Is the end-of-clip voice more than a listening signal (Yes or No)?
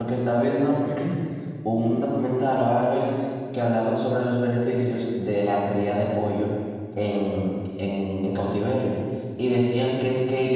No